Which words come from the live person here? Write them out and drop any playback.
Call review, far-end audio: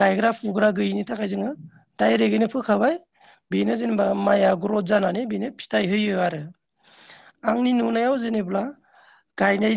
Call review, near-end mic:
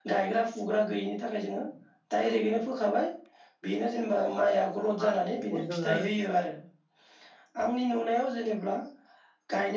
जायोबा जोङो हा बेखौ जोङो

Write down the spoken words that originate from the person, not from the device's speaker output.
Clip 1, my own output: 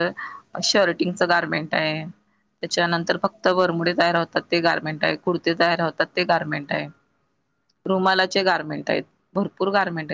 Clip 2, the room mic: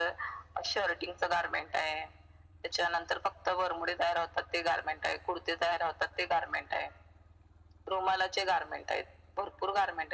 none

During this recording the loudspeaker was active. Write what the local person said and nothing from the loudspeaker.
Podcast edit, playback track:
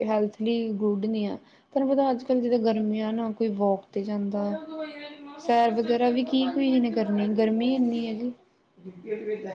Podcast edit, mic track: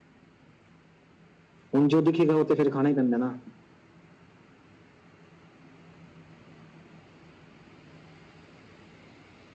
ਹੁਣ ਜੋ ਦਿਖੇਗਾ ਉਹ ਤੇ ਫੇਰ ਖਾਣਾ ਈ ਪੈਂਦਾ ਨਾ।

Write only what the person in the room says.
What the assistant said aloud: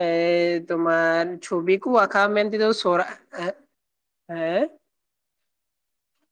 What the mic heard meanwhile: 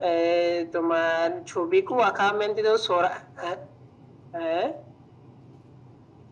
none

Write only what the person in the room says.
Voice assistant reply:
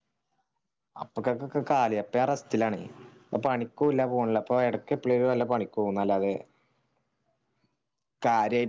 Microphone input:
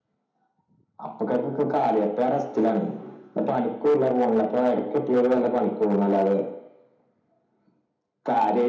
none

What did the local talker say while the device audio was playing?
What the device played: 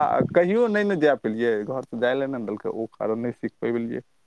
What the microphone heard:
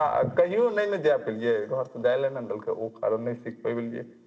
none

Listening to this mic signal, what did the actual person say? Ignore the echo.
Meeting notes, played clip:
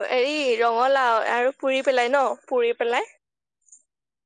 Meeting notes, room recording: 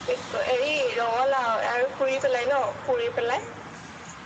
none

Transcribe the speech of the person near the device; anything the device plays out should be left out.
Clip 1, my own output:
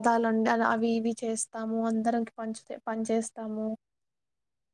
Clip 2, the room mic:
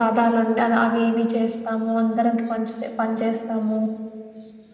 none

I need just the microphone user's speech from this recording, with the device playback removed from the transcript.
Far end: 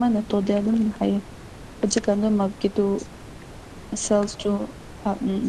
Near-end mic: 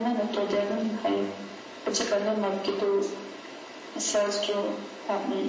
none

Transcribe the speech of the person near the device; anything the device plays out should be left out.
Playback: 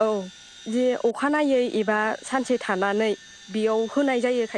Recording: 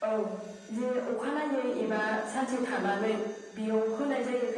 none

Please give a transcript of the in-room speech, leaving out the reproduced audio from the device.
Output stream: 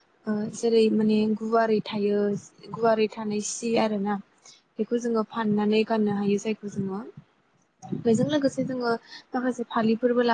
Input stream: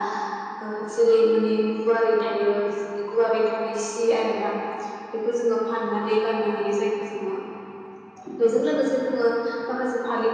none

